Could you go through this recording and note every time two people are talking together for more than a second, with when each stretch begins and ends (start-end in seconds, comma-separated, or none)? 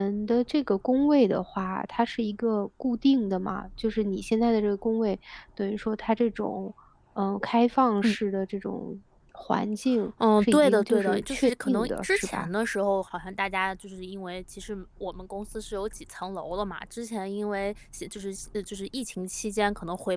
10.4-12.5